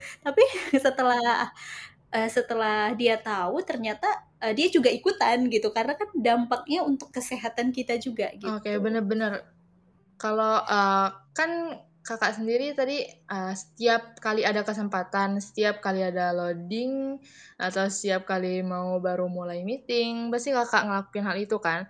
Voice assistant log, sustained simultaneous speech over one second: none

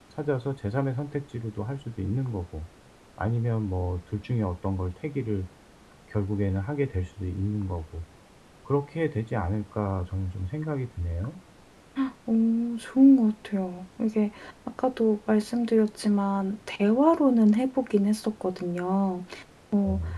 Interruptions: none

